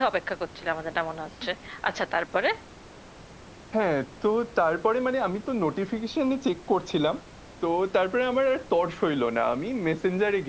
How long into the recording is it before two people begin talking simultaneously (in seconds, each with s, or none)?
none